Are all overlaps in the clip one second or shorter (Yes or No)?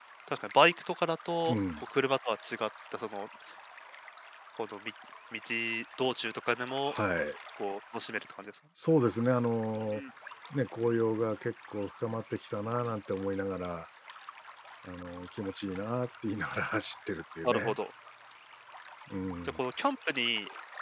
Yes